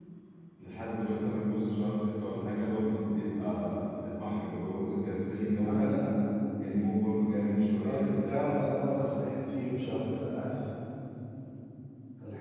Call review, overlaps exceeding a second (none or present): none